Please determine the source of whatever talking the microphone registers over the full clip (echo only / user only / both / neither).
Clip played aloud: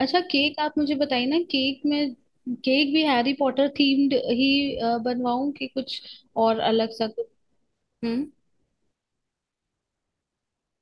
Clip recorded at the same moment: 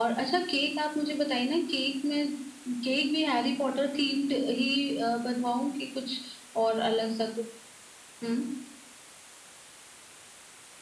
echo only